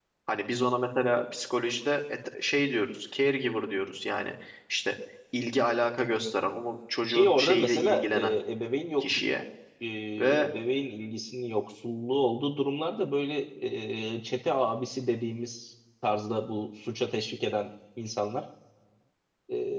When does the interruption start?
7 s

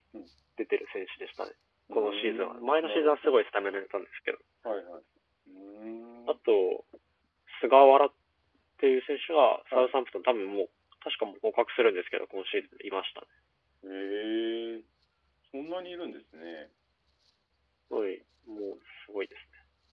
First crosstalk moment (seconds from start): 2 s

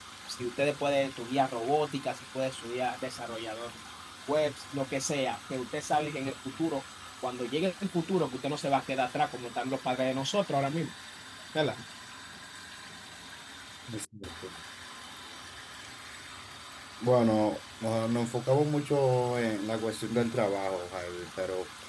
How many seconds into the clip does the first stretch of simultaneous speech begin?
none

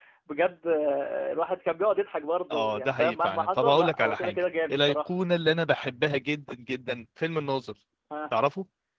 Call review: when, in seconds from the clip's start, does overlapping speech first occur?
3 s

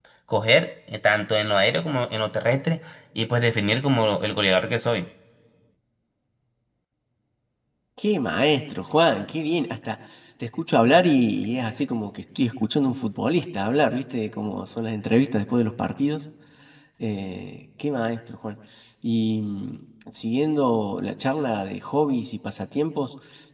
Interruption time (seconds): none

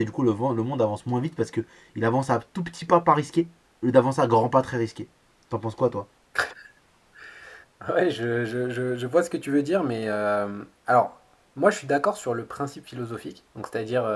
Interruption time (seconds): none

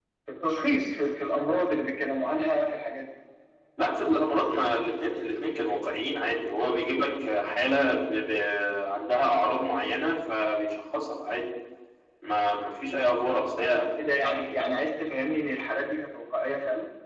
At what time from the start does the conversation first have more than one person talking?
none

